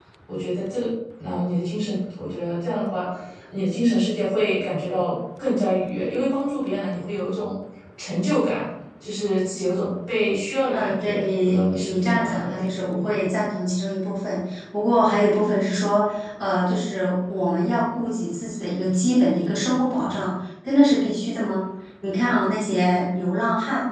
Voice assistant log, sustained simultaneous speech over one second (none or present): present